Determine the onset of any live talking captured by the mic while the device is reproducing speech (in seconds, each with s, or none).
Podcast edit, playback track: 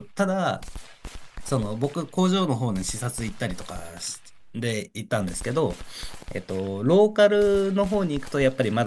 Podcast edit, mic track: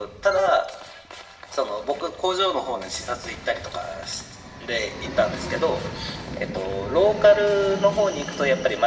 none